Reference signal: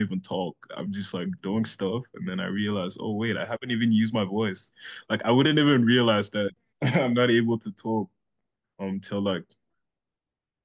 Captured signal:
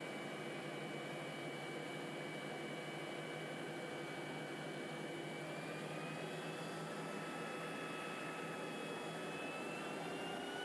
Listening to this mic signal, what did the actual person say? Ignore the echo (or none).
none